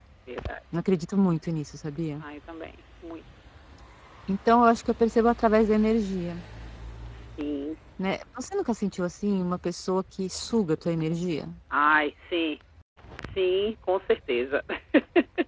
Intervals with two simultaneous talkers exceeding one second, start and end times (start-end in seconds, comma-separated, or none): none